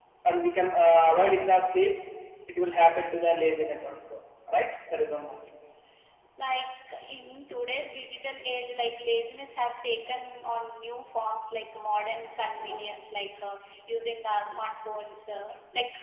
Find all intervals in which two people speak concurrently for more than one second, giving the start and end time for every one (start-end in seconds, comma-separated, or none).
none